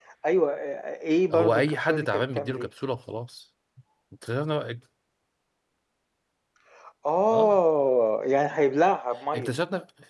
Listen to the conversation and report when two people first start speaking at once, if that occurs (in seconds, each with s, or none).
1.3 s